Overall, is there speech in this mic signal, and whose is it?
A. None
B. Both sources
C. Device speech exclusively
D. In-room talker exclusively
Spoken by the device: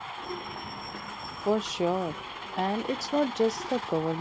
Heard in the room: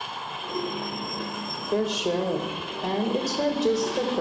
C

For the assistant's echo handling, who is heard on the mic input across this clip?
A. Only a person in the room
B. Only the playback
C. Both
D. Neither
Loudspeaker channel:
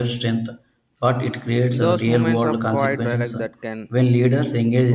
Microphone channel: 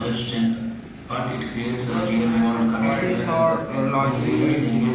C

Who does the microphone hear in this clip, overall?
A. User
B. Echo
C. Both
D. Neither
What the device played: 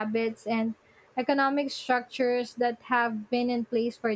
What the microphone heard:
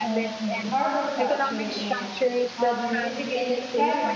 C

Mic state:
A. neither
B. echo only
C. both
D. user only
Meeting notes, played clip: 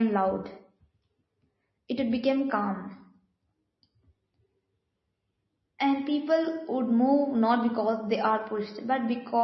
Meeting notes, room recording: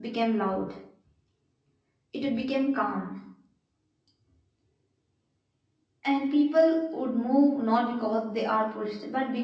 B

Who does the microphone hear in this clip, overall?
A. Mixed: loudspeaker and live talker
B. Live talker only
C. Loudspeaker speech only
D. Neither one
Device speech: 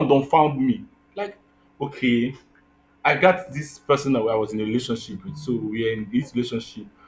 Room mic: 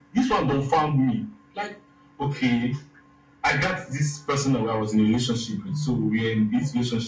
C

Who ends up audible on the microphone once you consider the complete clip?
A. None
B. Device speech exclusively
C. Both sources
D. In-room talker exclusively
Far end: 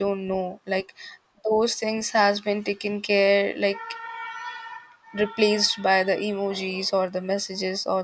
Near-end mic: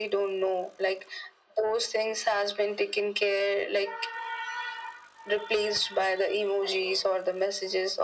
B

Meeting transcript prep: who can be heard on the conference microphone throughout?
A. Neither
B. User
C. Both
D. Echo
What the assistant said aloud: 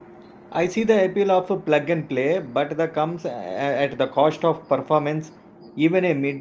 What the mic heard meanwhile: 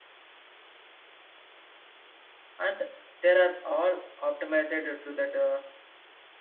B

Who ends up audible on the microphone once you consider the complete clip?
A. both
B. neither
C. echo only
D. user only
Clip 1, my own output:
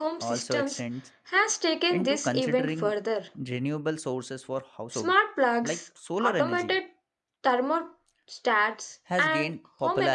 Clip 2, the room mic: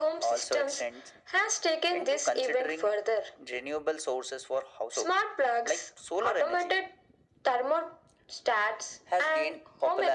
C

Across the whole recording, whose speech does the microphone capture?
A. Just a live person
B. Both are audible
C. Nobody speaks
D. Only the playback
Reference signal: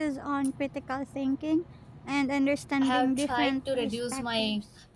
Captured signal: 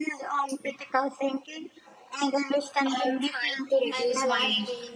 B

